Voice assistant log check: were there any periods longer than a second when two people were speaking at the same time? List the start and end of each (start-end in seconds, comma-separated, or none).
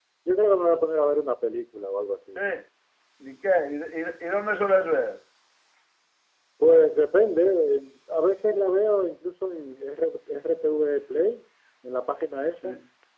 none